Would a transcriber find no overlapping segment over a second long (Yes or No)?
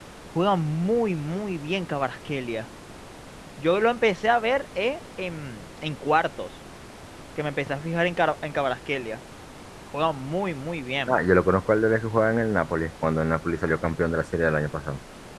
Yes